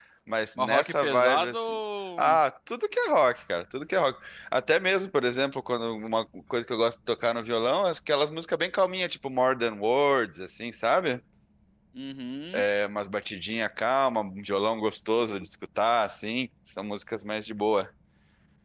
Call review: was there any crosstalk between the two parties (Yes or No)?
Yes